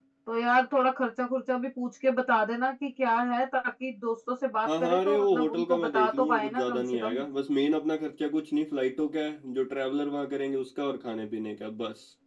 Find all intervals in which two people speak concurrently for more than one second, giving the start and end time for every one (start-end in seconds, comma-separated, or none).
4.7-7.2